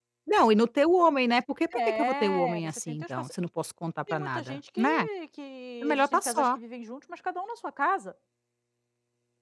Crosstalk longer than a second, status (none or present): present